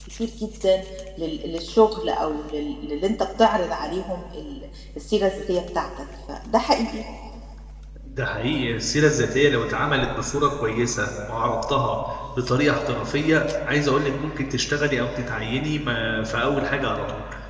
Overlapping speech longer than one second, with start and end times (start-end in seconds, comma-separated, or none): none